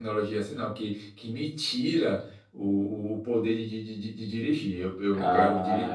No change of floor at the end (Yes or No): No